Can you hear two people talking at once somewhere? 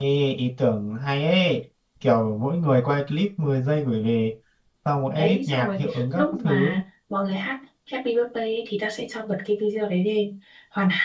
Yes, from 5.2 s

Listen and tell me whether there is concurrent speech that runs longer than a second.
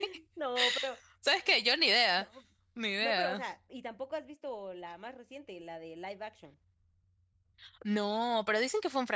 No

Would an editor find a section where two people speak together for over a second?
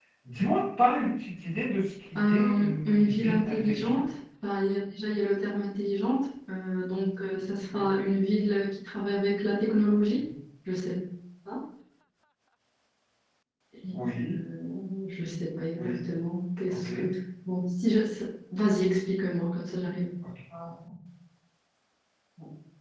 Yes, from 2.2 s

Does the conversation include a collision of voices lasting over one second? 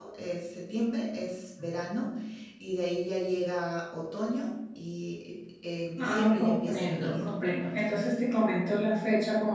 Yes, from 6.0 s

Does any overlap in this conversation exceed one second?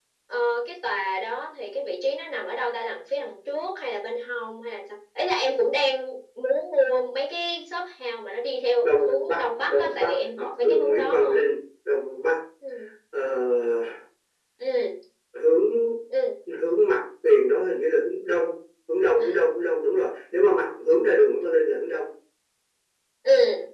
Yes, from 8.8 s

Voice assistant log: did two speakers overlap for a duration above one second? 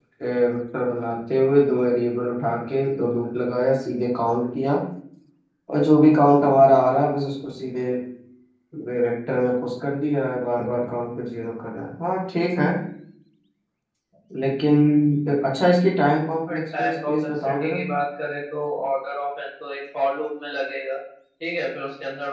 Yes, from 16.5 s

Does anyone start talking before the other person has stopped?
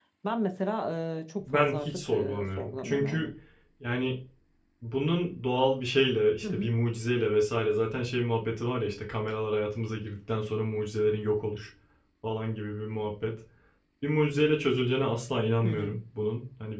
Yes, from 1.4 s

